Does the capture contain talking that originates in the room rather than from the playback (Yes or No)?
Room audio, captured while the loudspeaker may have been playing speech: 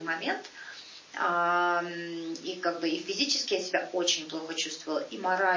No